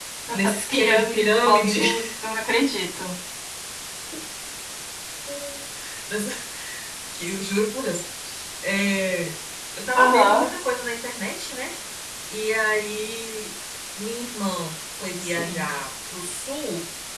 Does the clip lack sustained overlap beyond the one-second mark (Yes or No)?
No